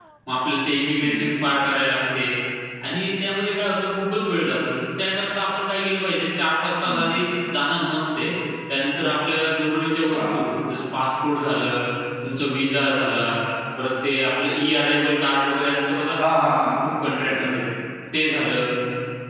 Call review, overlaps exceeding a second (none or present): none